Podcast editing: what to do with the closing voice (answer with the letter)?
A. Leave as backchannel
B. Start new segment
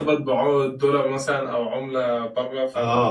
B